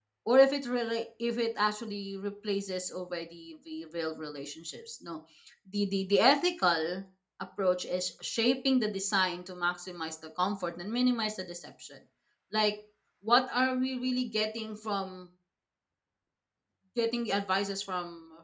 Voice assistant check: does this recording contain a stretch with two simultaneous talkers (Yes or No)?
No